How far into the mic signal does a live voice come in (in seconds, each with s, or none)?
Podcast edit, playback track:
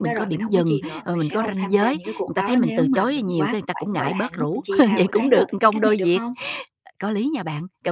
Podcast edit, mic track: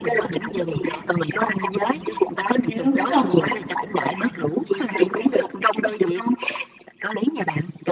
2.8 s